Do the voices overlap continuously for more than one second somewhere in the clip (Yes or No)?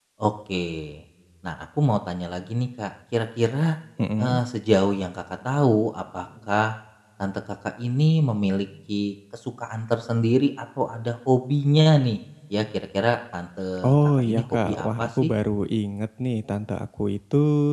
Yes